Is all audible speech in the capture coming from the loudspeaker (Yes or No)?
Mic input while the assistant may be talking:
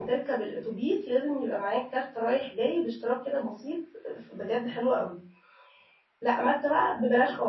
No